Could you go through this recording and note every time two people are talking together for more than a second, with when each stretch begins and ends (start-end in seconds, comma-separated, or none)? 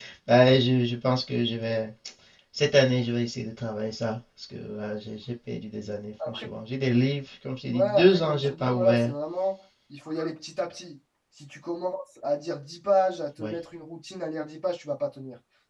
7.7-9.1